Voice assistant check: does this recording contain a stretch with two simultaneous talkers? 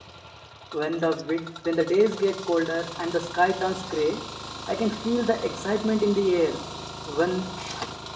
No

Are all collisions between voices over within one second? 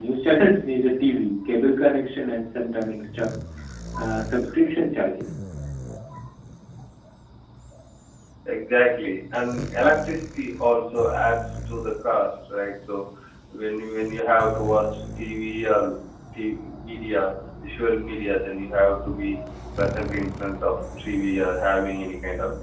Yes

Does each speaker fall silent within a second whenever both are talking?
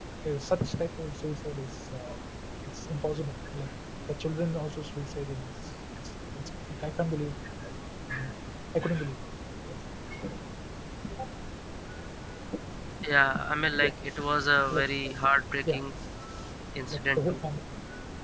Yes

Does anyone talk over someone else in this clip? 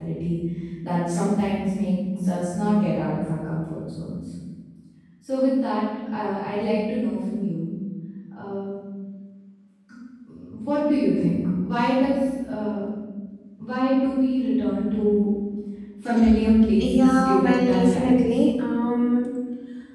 Yes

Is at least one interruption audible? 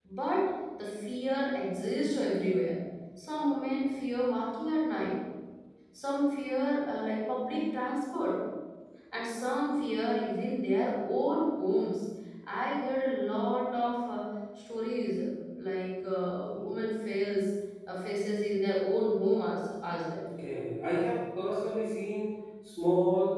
No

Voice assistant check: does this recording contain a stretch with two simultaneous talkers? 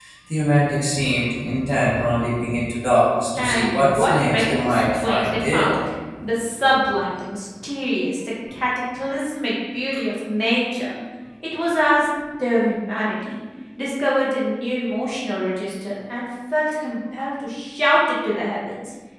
Yes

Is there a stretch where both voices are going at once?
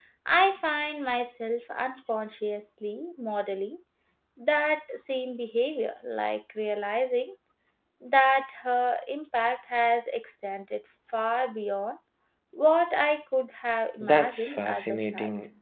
Yes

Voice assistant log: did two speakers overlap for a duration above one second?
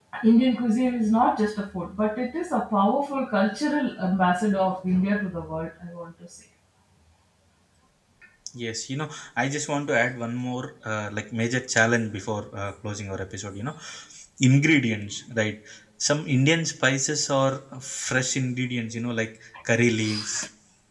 No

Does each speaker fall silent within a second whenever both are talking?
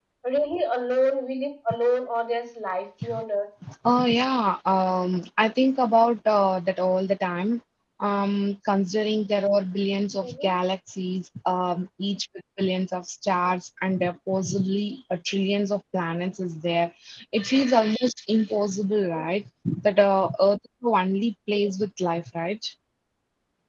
Yes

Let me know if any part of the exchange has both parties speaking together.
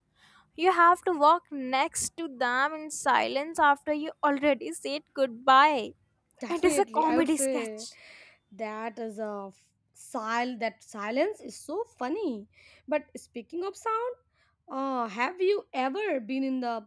Yes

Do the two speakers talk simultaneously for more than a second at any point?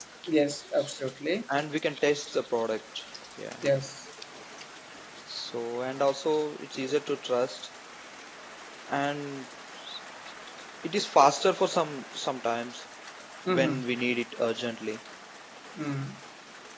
No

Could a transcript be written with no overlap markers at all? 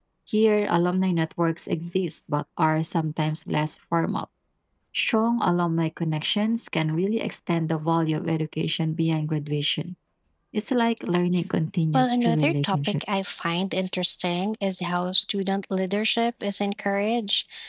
No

